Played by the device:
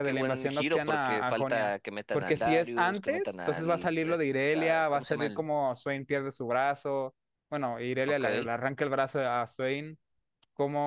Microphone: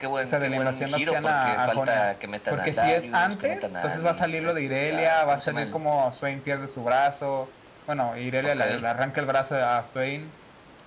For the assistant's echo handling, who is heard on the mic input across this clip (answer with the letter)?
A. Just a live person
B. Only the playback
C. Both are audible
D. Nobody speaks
B